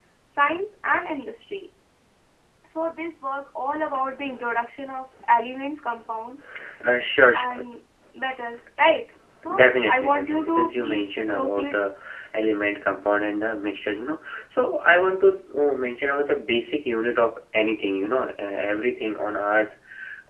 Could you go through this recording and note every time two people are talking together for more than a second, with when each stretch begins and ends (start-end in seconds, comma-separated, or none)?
9.6-11.8